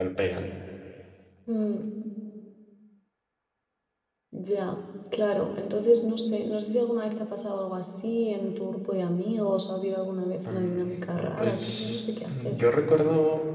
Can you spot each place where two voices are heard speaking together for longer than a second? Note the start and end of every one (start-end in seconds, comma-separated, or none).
11.4-12.6